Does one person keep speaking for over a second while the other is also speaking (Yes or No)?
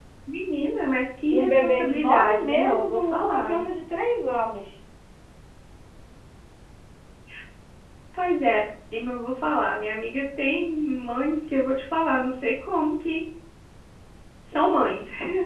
Yes